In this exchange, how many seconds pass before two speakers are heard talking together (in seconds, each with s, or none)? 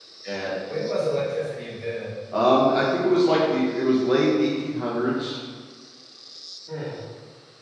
none